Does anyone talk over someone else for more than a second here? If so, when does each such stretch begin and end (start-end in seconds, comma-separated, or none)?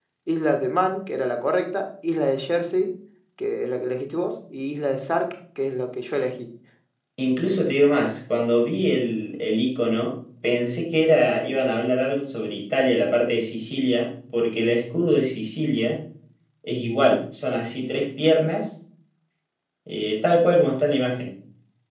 none